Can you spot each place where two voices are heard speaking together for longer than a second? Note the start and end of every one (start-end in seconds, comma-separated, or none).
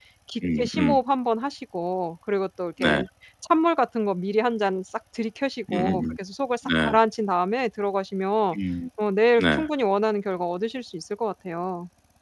none